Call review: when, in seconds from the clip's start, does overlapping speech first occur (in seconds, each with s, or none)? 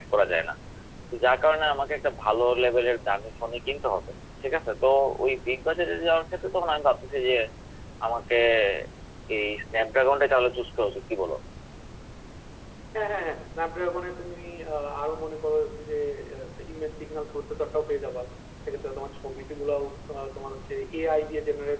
none